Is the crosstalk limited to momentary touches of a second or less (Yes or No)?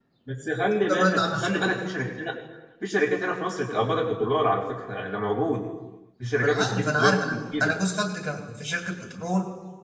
No